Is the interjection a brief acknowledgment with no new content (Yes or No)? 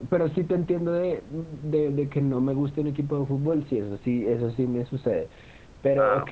Yes